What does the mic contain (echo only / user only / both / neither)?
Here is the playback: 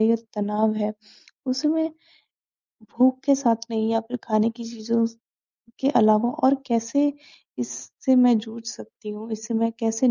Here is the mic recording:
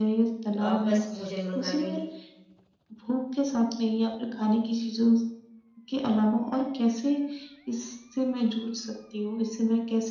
both